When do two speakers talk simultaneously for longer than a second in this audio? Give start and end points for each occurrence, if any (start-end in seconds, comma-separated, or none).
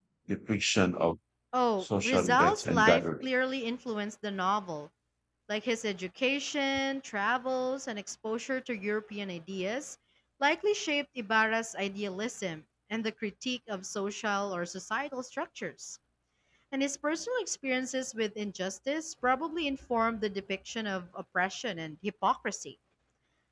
1.8-3.3